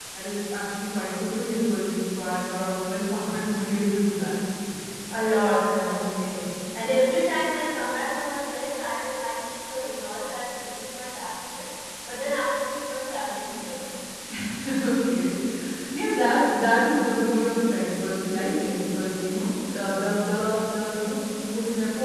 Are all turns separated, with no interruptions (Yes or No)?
Yes